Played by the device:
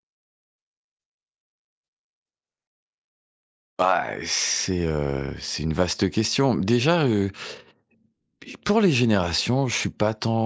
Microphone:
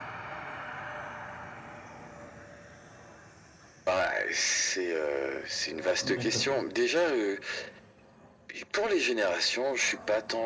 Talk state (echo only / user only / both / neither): both